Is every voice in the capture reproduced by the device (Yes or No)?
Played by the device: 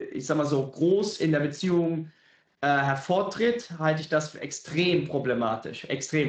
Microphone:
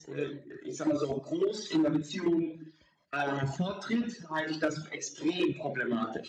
Yes